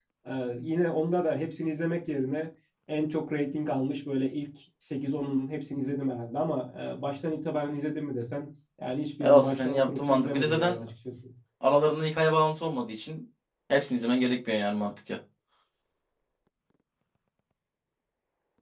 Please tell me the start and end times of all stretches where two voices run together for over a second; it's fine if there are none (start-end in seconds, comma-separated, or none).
9.2-10.8